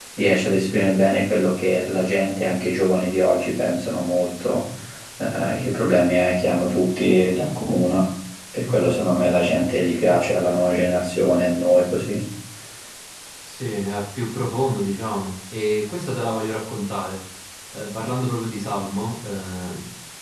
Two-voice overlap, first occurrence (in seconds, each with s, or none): none